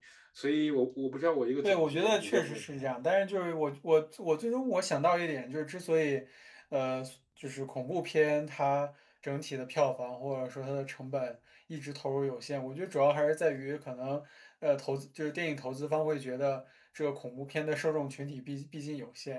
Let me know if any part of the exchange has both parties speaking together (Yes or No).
Yes